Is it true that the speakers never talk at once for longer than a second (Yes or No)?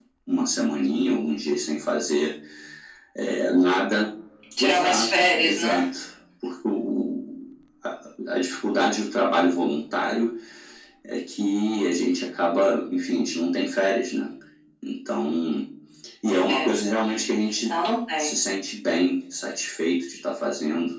No